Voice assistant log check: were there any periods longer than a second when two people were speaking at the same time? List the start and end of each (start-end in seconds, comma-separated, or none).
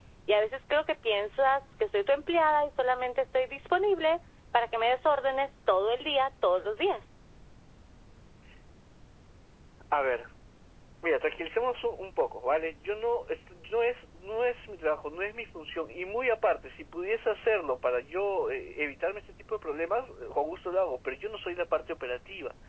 none